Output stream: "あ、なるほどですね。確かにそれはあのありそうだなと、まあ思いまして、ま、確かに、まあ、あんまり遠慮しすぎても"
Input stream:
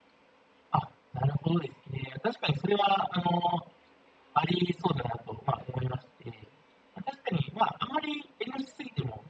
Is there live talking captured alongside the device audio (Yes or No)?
No